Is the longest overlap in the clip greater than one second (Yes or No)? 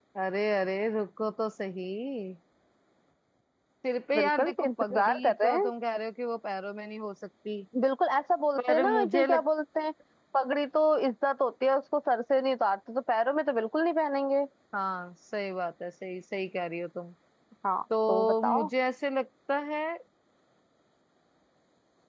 Yes